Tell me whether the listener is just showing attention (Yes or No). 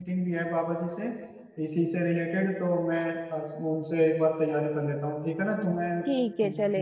No